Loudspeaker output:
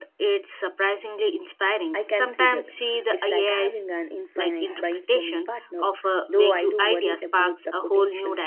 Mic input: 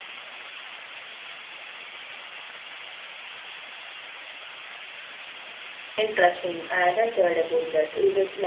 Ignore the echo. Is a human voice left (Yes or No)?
Yes